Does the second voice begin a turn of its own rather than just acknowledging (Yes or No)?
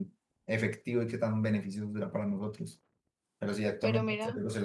No